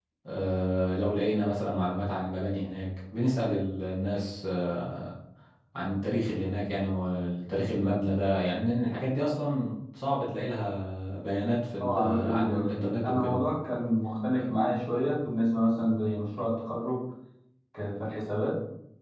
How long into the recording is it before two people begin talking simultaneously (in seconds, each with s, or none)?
11.8 s